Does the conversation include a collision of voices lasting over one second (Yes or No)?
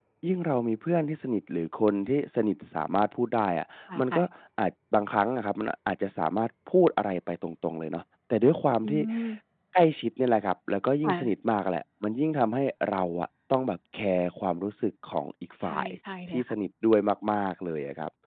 No